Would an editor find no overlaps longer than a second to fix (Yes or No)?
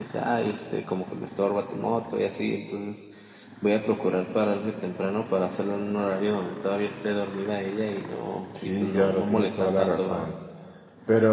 No